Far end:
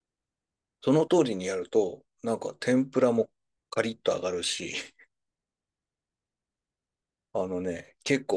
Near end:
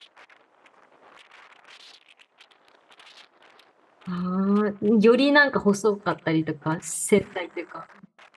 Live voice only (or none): ああ、よりなんか細かったりとか、繊細というか。